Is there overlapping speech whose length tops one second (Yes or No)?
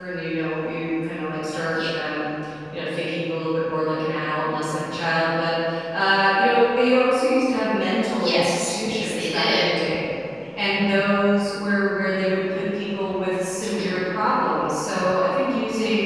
Yes